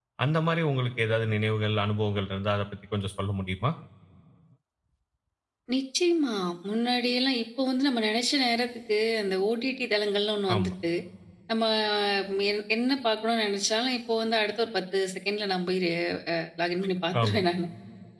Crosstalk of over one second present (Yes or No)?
No